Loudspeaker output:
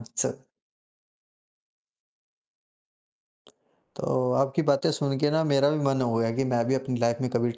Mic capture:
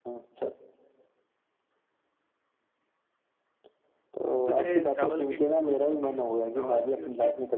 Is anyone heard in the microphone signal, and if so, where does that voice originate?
both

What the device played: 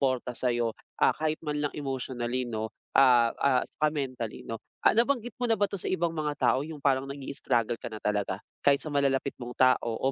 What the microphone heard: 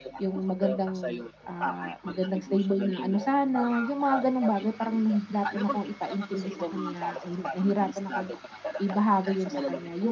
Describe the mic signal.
both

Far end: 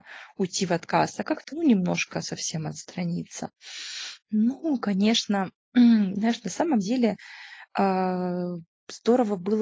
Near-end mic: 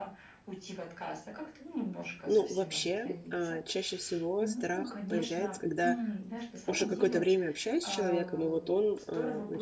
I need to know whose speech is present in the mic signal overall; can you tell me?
both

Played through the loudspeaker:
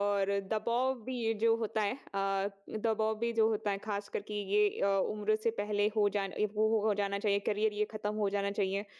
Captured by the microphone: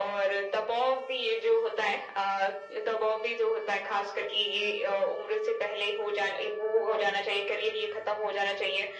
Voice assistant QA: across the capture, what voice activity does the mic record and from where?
echo only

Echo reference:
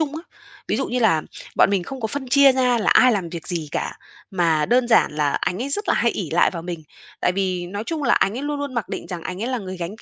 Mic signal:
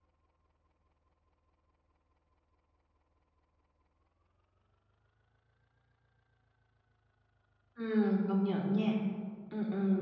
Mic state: user only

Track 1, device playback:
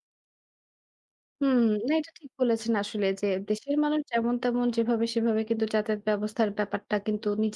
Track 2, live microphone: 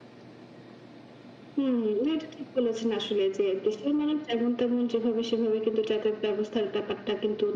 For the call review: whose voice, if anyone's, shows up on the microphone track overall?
echo only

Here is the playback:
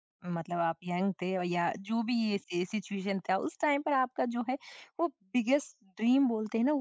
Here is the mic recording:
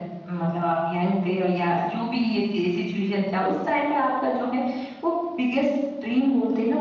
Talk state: echo only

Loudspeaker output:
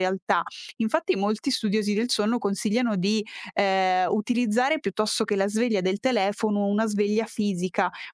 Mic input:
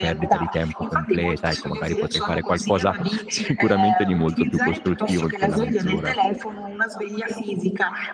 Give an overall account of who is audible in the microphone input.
both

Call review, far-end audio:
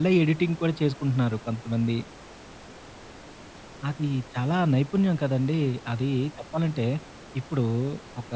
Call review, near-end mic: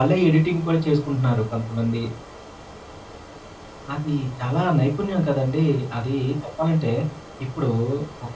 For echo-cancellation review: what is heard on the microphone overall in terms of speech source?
echo only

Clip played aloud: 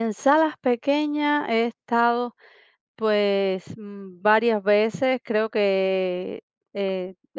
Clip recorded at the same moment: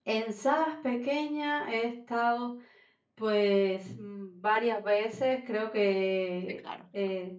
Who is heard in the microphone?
both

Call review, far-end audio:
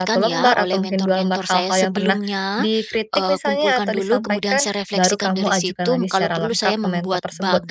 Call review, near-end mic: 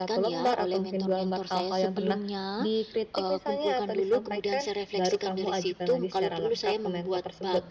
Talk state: echo only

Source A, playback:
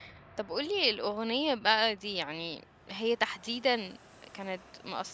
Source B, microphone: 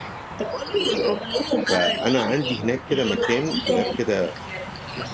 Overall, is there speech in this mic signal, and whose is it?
both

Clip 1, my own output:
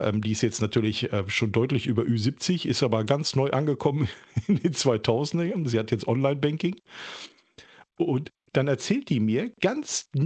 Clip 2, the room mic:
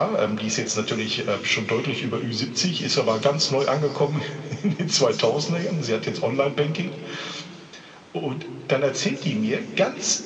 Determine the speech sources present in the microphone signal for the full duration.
echo only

